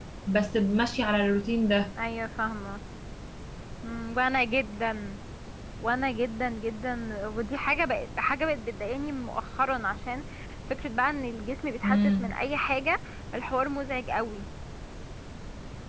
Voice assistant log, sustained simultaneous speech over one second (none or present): none